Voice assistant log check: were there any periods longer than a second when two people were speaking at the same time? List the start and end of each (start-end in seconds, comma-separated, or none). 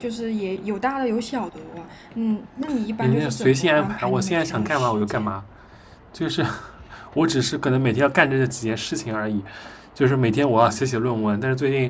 3.0-5.3